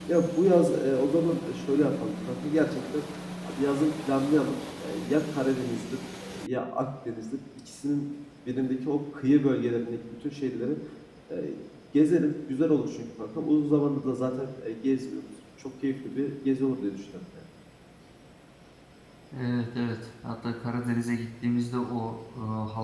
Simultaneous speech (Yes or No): No